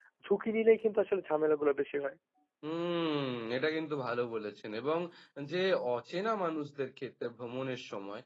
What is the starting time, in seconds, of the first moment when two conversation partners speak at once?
none

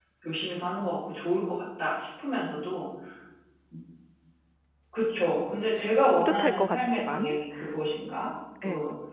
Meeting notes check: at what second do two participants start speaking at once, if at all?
6.2 s

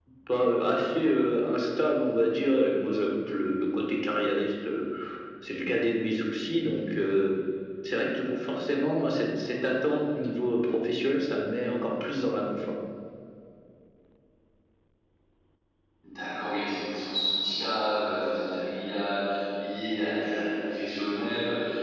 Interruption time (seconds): none

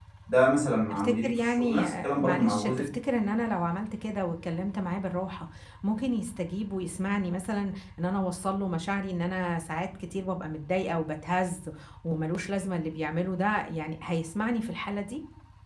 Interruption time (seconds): 0.9 s

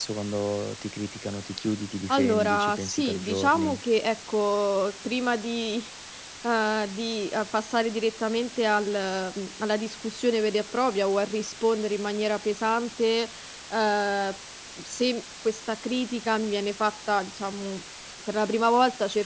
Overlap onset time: 2.1 s

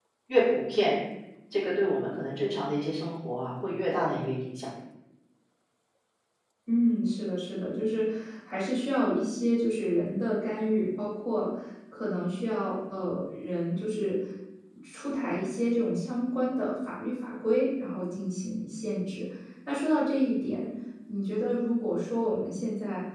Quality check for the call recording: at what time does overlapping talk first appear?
none

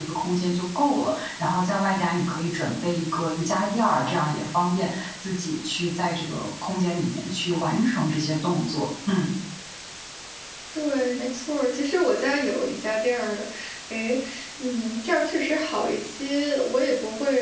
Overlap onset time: none

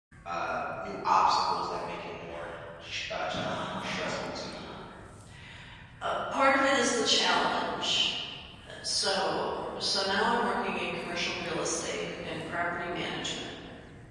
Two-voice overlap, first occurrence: 3.4 s

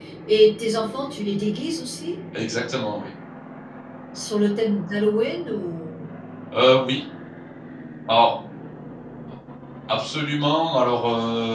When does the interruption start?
none

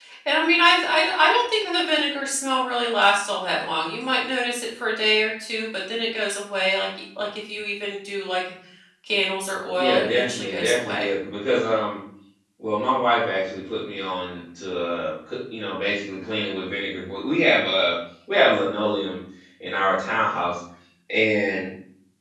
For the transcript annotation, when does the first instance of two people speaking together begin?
9.8 s

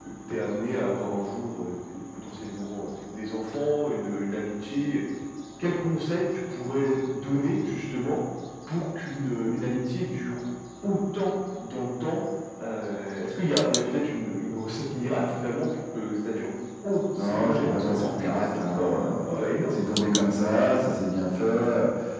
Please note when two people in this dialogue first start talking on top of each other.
17.2 s

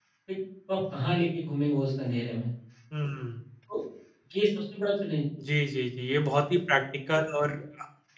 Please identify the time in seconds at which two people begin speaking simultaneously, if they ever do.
none

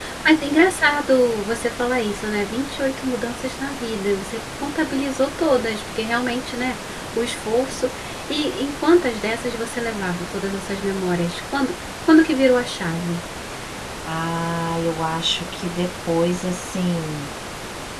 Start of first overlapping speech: none

